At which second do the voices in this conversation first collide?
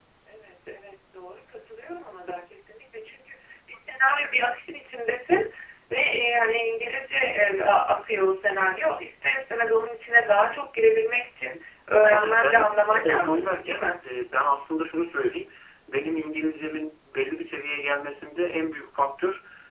12.0 s

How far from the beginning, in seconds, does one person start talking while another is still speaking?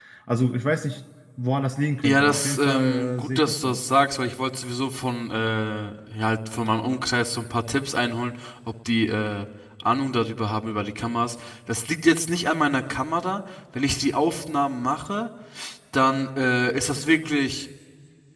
2.0 s

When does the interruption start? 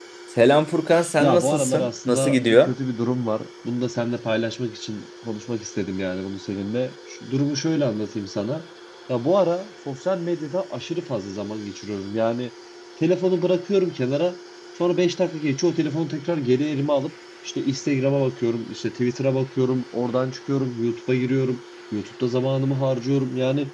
1.2 s

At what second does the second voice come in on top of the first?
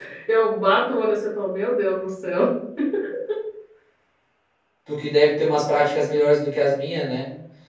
none

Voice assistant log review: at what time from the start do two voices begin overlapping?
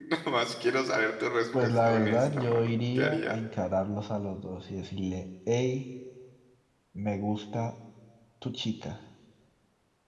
1.5 s

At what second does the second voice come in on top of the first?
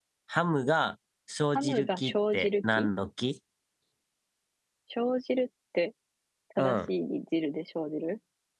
1.6 s

